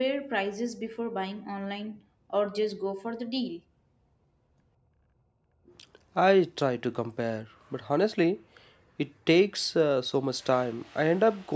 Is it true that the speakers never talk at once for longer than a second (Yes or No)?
Yes